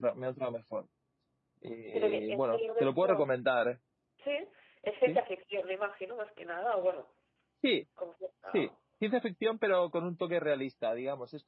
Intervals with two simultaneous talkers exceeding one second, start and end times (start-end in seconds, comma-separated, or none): 1.9-3.2